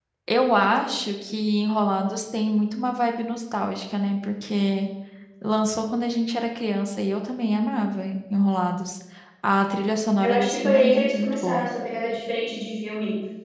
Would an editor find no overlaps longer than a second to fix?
No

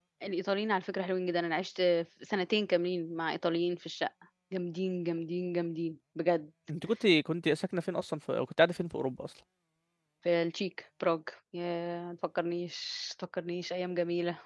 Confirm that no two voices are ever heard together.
Yes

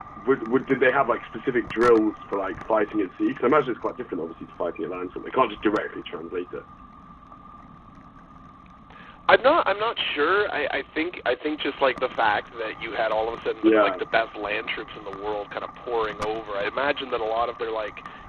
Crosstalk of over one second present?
No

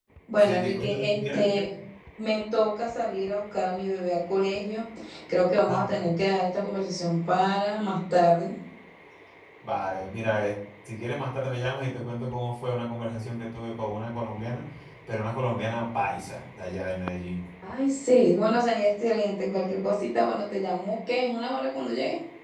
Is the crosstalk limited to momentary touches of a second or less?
No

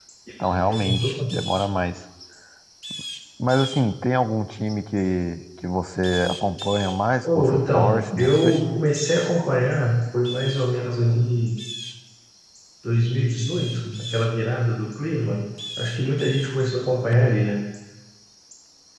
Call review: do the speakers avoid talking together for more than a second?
No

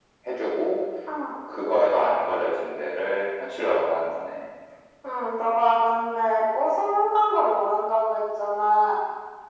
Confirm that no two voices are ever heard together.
Yes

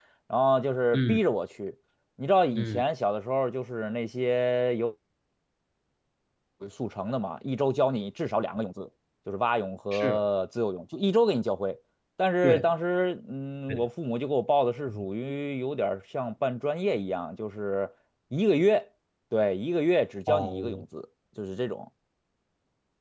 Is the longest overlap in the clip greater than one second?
No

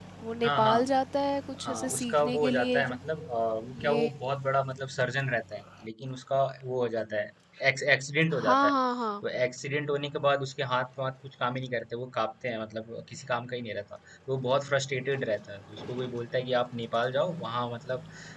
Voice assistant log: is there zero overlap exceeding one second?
No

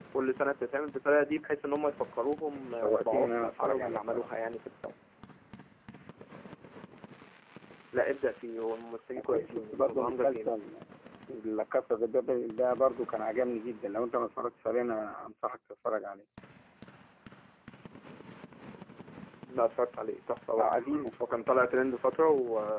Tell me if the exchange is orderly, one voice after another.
No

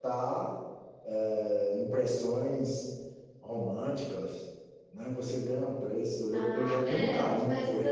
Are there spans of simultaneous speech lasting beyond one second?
Yes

